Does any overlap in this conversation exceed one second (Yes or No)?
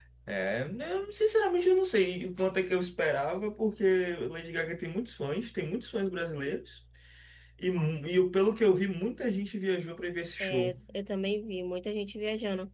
No